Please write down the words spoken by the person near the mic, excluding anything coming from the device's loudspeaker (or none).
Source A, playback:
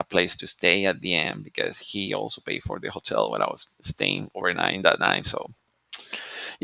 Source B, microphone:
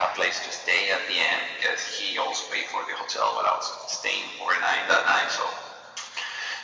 none